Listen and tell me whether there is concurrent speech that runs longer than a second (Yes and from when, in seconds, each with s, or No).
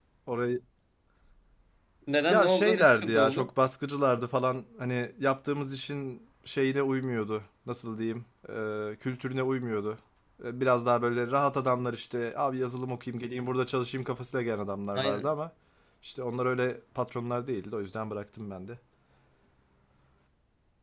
Yes, from 2.3 s